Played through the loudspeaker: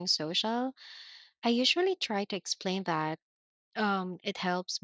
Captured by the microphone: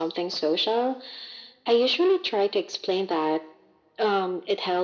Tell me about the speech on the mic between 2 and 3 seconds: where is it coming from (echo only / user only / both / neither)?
echo only